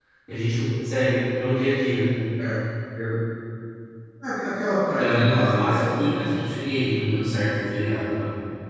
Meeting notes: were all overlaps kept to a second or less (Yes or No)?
No